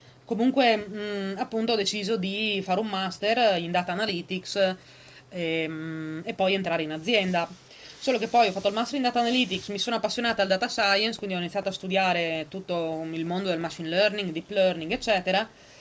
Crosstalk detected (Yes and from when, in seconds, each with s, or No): No